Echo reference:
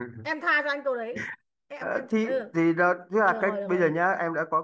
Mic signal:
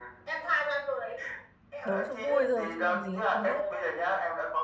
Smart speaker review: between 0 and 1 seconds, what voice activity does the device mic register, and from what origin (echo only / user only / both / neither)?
echo only